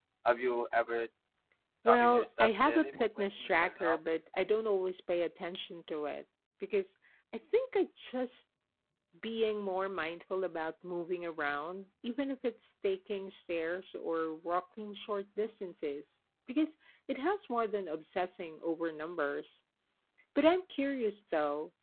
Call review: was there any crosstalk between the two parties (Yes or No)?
Yes